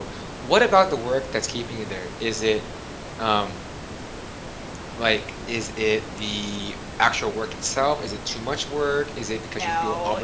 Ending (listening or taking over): listening